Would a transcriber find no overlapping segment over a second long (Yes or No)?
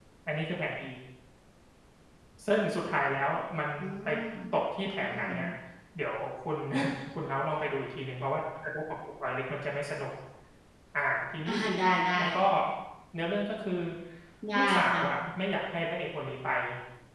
Yes